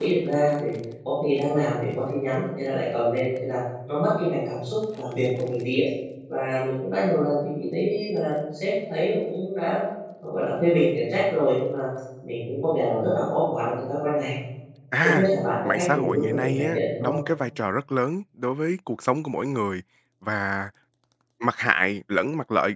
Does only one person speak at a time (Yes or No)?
No